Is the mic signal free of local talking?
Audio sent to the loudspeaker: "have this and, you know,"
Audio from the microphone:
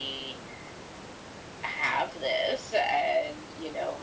Yes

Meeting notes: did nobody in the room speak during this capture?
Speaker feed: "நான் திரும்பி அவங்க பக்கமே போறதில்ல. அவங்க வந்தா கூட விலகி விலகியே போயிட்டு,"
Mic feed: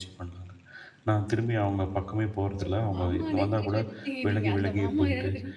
No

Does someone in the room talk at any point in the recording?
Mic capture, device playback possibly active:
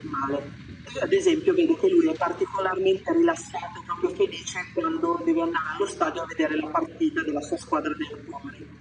No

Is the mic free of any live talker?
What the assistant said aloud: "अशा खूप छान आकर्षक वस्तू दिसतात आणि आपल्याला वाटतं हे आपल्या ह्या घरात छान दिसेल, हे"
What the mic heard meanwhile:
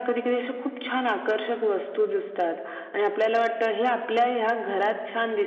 Yes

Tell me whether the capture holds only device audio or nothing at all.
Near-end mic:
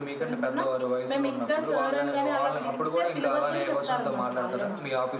No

